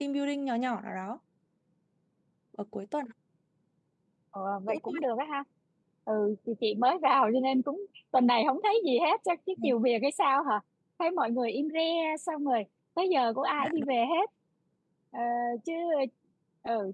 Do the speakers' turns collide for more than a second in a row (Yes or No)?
No